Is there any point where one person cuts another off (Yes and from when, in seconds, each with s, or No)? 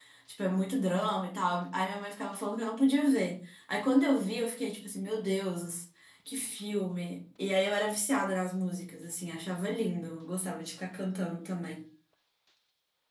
No